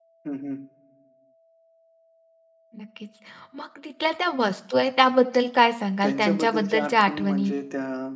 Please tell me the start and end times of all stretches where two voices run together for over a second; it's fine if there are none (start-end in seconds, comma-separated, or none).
6.0-7.5